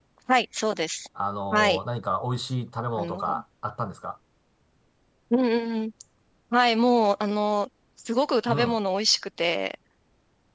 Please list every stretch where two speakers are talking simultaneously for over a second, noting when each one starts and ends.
none

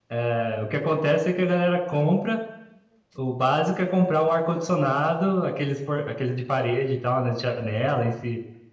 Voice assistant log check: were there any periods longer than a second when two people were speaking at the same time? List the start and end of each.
none

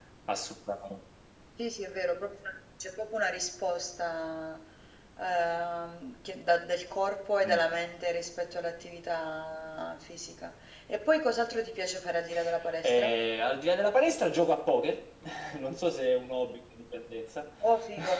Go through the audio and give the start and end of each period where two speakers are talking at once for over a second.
none

